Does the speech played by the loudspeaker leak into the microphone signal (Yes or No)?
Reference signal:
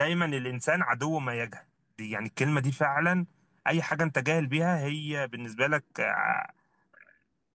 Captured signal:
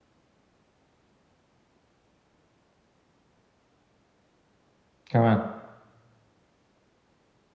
No